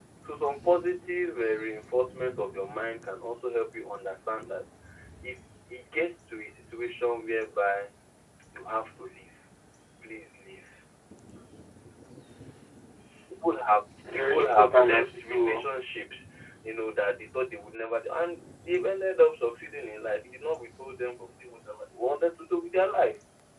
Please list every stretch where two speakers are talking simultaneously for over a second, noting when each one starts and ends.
14.1-15.6

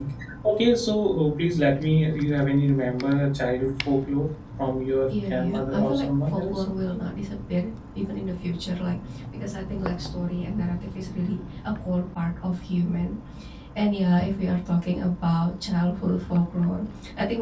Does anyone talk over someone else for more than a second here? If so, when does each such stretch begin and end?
5.3-6.6

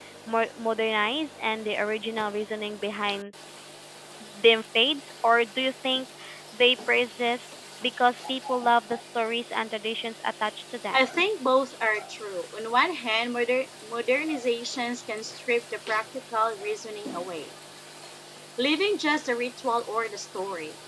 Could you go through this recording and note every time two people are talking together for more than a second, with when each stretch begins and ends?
none

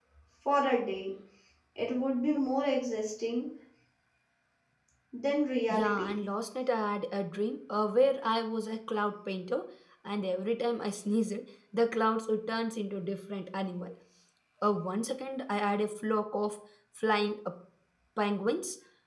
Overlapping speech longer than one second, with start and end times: none

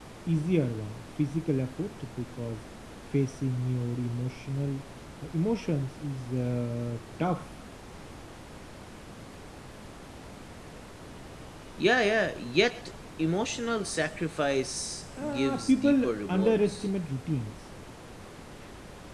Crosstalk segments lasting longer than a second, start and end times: 15.2-16.9

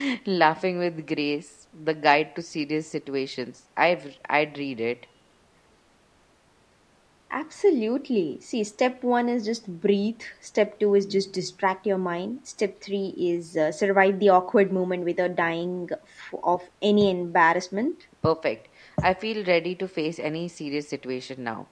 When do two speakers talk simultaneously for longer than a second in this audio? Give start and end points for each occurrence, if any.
none

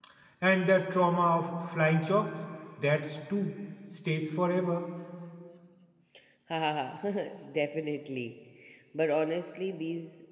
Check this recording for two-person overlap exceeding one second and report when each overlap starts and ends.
none

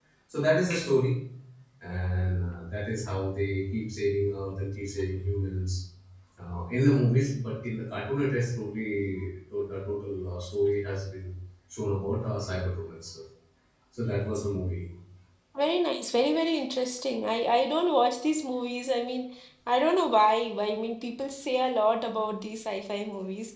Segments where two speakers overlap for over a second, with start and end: none

